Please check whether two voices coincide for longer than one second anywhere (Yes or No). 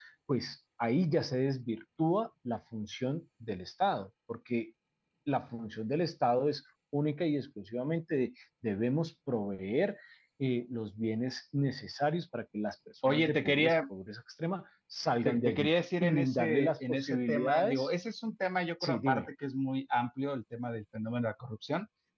Yes